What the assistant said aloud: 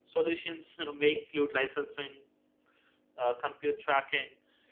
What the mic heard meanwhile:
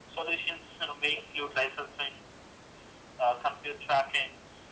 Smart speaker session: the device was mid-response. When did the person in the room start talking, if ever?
none

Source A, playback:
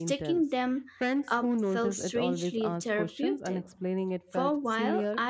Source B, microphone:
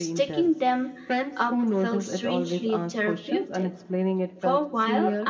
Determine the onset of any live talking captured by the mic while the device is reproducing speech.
none

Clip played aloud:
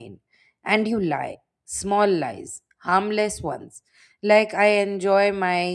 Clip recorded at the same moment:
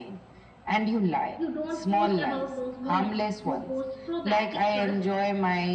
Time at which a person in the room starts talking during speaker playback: 1.4 s

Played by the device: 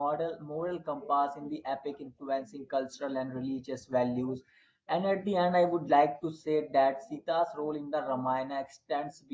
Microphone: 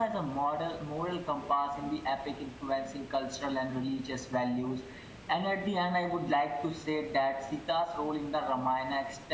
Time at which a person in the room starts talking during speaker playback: none

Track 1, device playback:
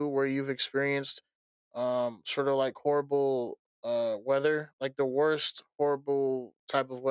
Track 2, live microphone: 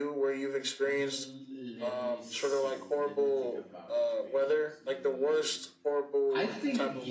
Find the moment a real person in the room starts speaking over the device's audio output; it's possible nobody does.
0.8 s

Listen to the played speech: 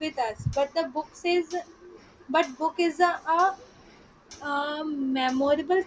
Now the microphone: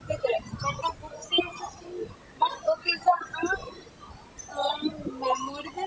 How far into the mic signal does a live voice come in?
none

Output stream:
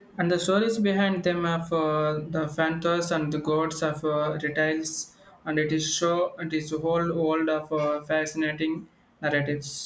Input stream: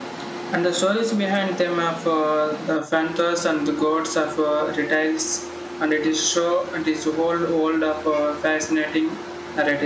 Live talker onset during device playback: none

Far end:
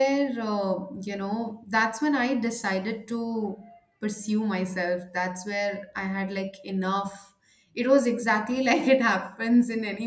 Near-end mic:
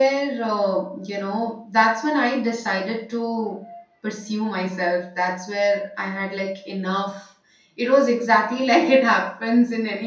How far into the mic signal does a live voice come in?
none

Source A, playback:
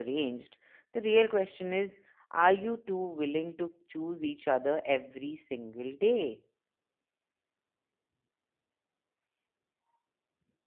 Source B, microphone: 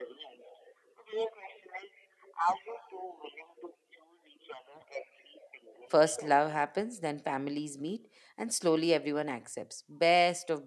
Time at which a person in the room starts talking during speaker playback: 5.9 s

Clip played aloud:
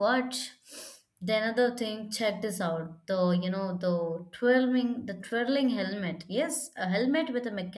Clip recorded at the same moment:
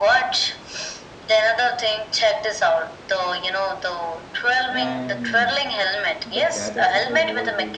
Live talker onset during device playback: 4.7 s

